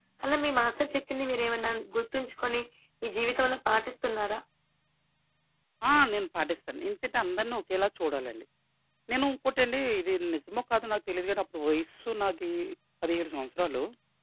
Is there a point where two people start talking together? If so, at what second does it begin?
none

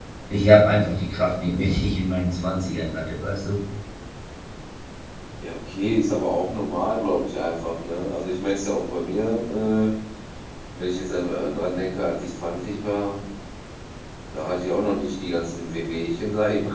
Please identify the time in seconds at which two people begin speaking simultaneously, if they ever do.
none

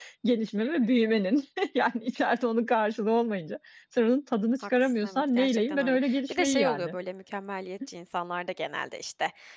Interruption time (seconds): 4.6 s

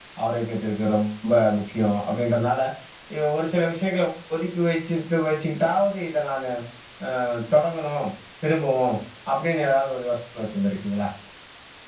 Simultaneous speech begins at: none

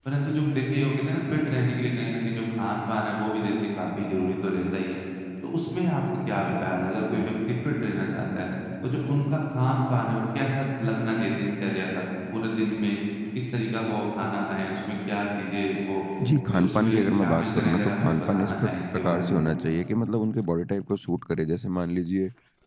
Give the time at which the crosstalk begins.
16.5 s

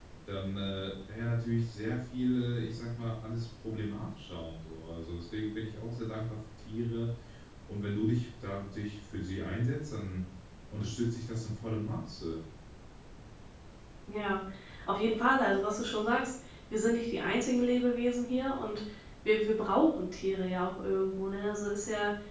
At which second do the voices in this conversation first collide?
none

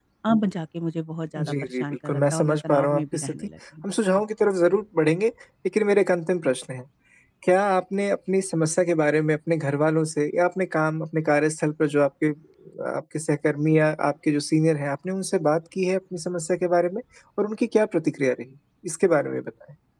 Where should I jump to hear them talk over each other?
1.4 s

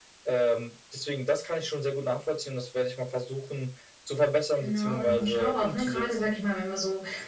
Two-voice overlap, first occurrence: 4.6 s

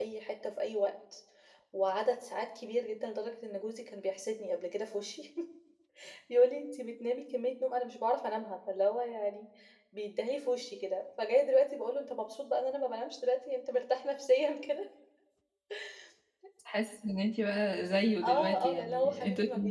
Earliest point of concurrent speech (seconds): 18.2 s

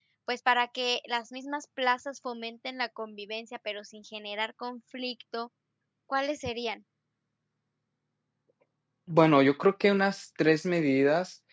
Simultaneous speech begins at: none

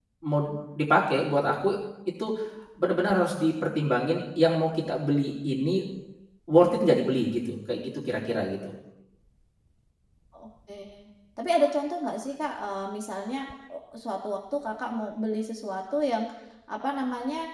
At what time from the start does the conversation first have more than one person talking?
none

